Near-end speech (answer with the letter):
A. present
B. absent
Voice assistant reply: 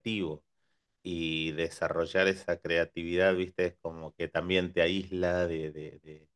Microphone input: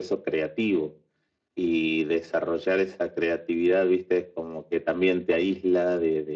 B